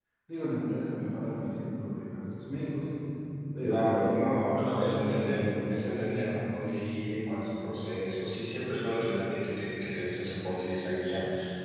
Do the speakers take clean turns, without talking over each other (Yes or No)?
No